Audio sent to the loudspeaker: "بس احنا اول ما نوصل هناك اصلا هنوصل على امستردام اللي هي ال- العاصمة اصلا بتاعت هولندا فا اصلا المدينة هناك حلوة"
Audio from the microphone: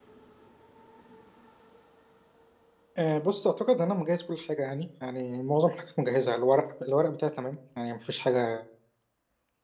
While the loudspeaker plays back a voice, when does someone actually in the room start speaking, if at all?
3.0 s

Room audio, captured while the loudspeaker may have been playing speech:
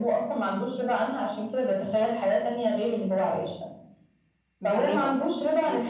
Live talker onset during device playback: 4.6 s

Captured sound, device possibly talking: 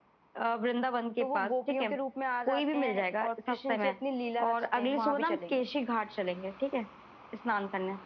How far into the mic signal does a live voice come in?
1.2 s

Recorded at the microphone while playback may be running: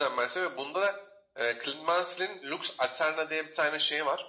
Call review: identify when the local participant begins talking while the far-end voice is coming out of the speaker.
none

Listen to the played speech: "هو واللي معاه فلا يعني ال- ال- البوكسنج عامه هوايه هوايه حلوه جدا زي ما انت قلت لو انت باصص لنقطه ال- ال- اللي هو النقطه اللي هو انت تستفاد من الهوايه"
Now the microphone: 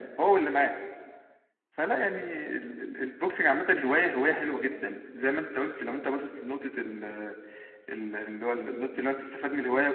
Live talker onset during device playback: none

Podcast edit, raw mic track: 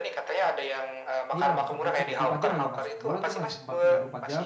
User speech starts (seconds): 1.3 s

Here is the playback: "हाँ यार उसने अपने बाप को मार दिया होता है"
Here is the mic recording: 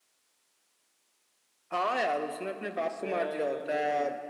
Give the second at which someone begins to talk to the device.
2.7 s

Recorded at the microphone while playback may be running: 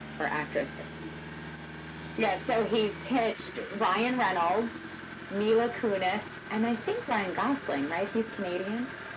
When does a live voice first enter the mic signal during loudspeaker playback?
none

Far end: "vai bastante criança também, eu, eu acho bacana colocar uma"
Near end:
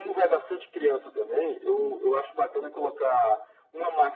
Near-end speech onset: none

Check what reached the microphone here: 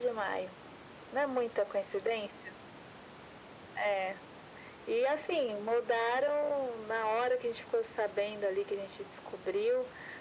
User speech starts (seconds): none

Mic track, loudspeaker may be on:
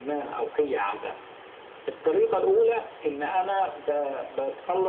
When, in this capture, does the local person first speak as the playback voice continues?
none

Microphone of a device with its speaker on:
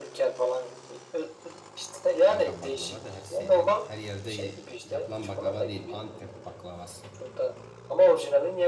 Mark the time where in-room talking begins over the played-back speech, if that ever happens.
2.3 s

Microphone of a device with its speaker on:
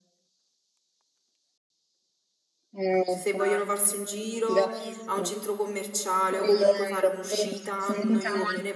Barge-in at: 3.0 s

